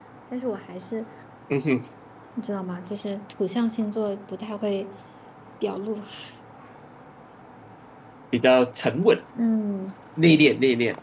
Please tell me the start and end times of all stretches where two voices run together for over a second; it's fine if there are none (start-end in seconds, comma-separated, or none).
none